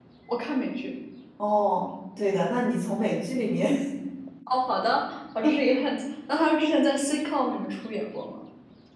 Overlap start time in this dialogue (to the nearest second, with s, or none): none